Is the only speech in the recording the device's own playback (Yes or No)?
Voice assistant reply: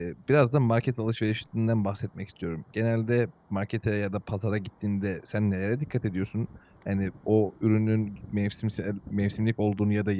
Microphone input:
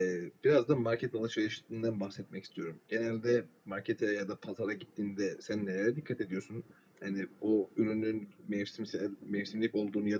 Yes